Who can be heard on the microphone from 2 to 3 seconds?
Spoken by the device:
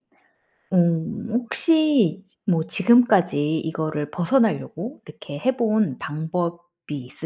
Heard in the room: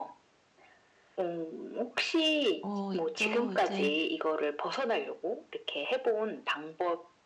both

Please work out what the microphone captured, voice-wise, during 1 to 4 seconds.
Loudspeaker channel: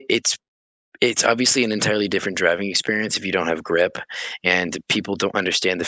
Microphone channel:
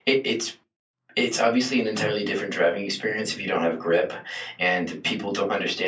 echo only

